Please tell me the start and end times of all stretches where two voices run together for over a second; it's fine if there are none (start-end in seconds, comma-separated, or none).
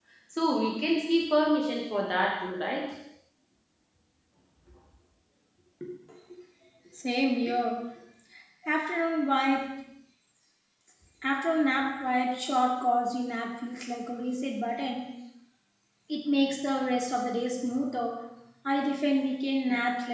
none